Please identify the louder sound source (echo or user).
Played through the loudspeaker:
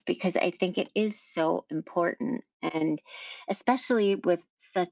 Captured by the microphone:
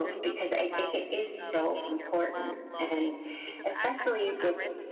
echo